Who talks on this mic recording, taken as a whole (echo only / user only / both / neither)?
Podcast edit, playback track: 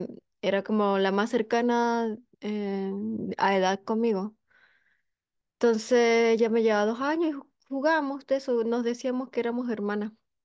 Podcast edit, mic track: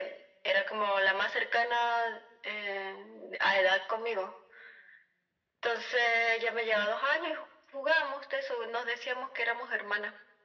echo only